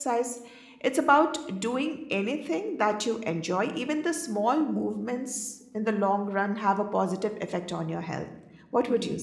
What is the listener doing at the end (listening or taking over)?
taking over